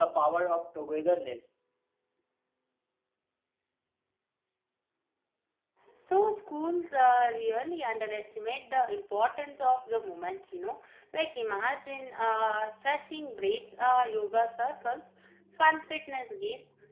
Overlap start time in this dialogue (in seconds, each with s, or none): none